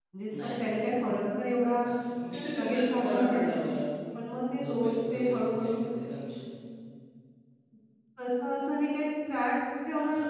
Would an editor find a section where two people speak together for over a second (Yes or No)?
Yes